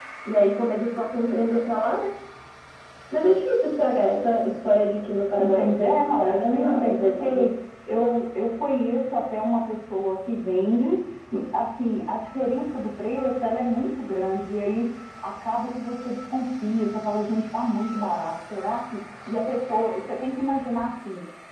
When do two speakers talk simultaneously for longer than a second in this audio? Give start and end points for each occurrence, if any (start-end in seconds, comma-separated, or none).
5.4-7.5